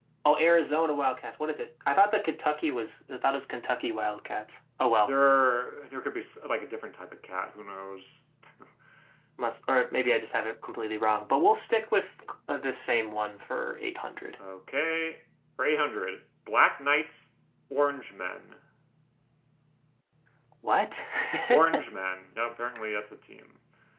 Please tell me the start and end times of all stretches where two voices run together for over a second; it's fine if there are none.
none

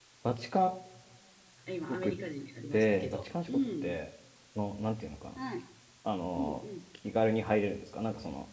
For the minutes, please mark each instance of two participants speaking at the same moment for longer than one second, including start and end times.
2.7-4.0

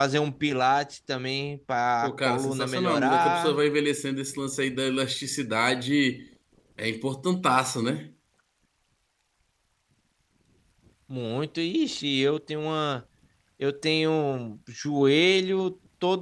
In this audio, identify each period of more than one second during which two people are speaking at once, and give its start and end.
2.0-3.6

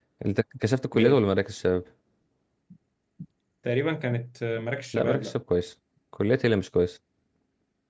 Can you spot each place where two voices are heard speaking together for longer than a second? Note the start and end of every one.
none

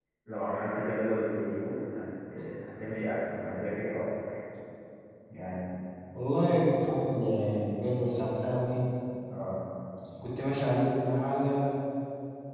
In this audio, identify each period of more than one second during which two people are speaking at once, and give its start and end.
none

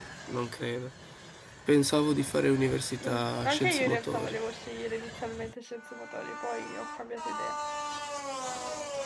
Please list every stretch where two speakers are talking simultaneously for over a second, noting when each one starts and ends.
3.0-4.4

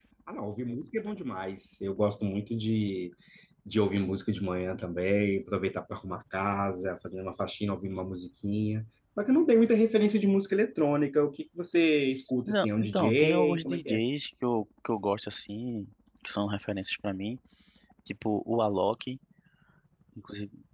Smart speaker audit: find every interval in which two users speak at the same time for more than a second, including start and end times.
12.5-14.0

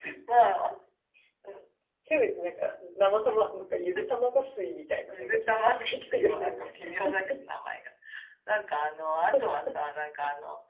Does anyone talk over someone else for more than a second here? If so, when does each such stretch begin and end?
5.1-6.6

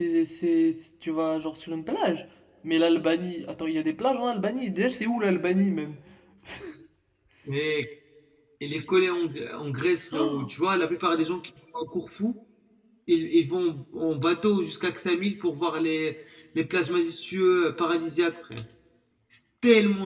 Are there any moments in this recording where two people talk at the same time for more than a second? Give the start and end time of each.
none

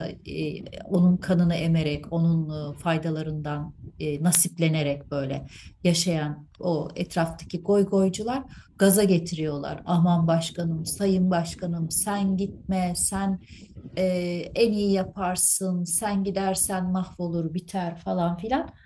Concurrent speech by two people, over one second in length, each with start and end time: none

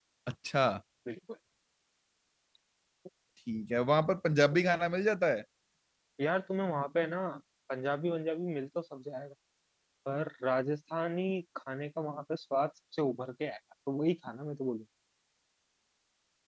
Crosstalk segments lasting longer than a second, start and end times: none

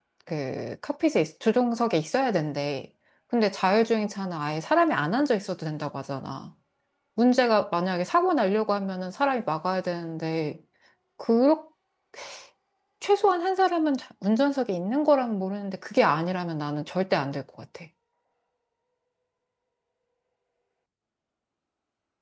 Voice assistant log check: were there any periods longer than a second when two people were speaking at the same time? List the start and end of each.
none

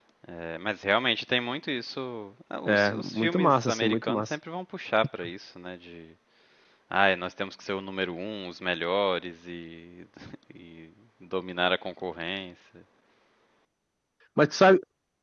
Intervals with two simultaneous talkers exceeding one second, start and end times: 2.7-4.3

